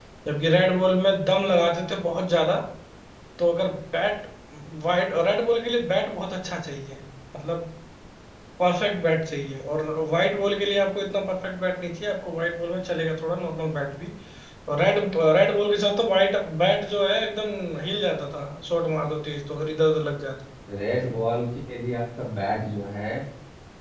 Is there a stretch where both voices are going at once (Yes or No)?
No